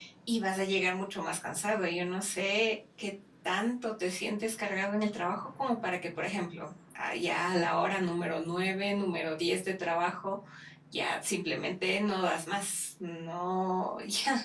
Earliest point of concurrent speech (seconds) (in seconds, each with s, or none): none